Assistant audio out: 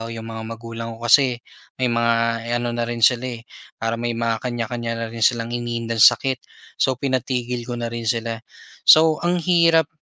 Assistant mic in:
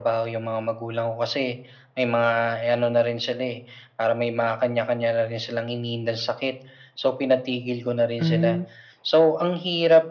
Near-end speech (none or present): present